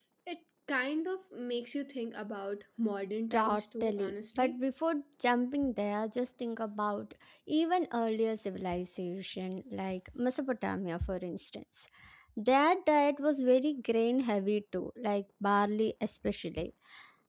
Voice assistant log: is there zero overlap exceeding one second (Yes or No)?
No